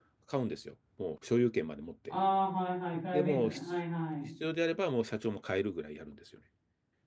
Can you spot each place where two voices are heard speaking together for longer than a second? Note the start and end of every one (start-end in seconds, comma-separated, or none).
none